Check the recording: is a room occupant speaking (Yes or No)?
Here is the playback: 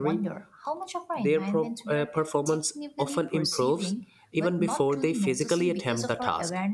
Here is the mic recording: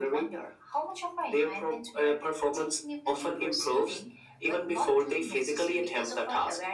No